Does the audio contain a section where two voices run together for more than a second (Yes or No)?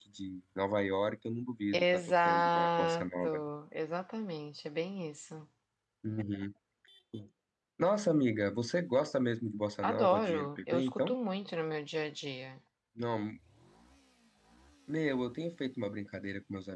Yes